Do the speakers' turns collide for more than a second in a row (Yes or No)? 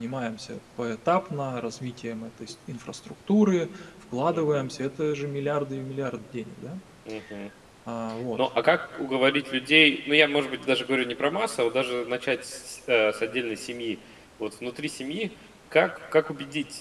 No